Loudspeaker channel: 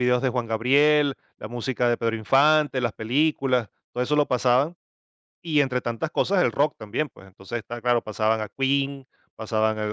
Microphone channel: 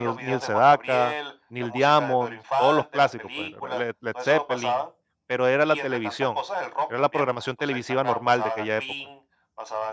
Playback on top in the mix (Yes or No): No